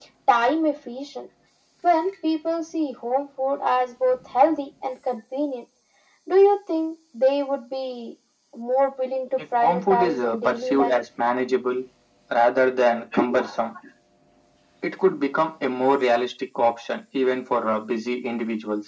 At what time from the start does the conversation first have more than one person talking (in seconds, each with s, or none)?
9.4 s